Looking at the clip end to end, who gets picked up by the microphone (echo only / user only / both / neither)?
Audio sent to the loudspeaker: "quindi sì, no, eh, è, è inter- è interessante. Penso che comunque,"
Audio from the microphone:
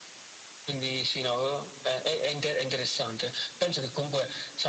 echo only